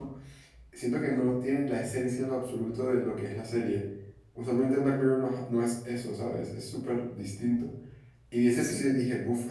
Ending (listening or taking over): listening